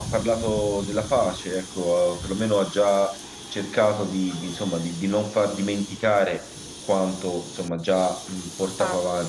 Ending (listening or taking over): listening